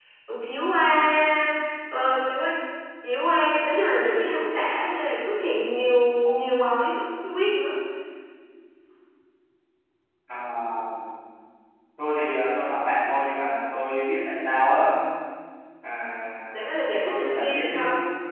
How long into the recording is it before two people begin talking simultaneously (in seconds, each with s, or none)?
16.5 s